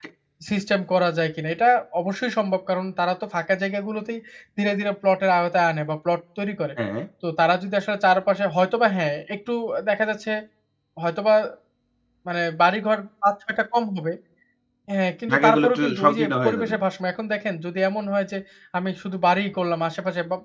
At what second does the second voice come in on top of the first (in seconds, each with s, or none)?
15.3 s